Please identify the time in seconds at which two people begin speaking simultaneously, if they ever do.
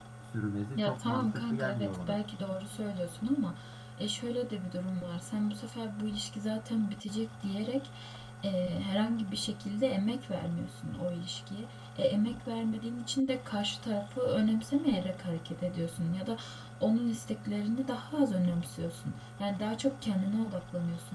0.8 s

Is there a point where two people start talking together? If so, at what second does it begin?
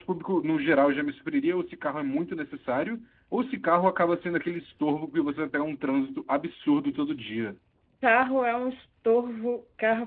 none

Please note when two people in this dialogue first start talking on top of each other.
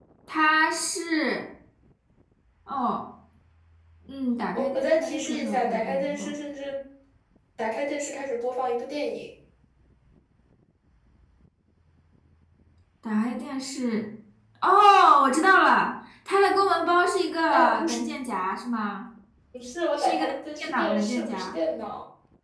4.5 s

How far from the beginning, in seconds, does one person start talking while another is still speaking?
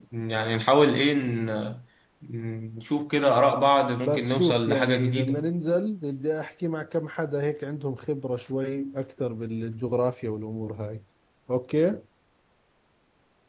4.0 s

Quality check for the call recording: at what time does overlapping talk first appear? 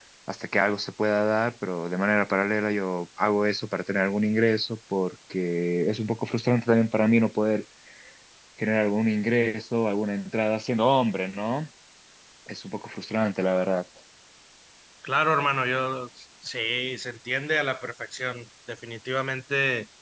none

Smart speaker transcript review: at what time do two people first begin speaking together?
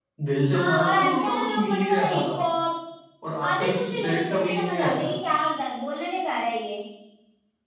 0.5 s

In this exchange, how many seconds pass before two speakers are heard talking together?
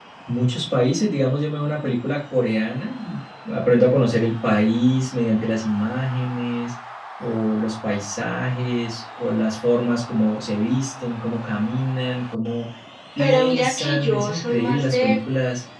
13.2 s

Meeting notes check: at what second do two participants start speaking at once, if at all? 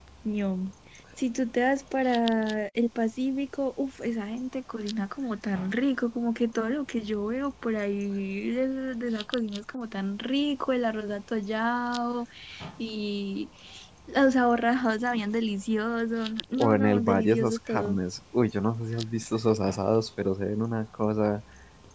16.6 s

